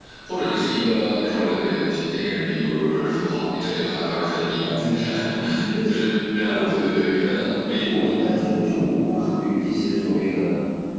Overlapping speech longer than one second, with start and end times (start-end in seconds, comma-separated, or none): none